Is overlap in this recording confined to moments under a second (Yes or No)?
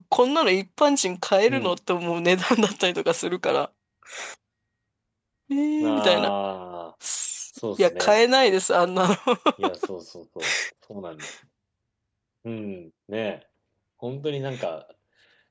Yes